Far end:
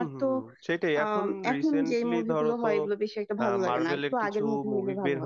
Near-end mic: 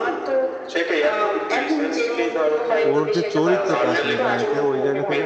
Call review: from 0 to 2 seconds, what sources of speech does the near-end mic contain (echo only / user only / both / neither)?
echo only